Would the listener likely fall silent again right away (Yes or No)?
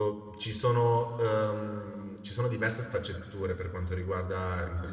Yes